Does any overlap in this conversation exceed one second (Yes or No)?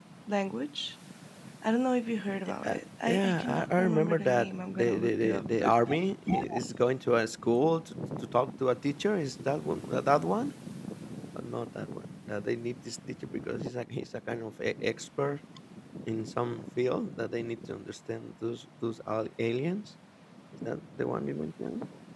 Yes